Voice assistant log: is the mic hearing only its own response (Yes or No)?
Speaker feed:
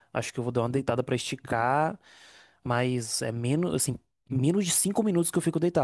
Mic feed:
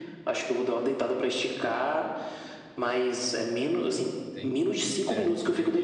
No